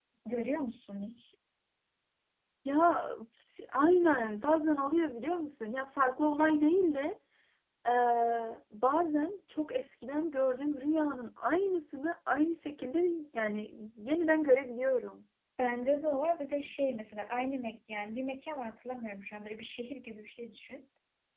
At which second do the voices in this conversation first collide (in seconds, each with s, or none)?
none